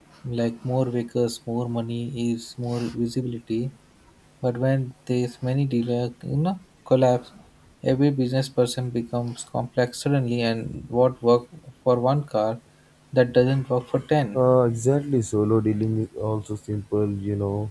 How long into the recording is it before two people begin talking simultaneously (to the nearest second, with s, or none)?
none